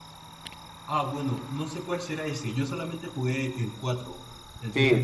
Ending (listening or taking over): taking over